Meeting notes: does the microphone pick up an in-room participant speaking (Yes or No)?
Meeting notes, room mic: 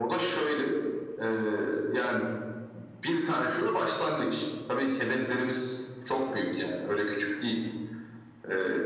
No